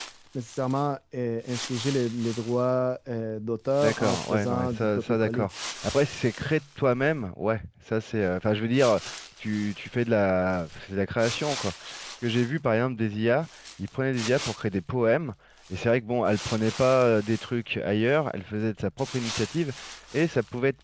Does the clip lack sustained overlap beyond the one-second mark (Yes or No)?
No